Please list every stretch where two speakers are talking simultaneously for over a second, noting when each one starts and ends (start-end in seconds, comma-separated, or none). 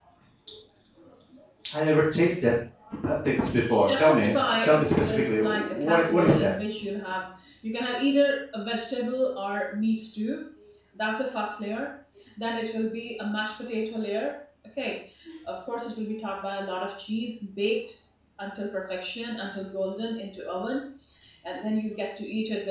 3.6-6.5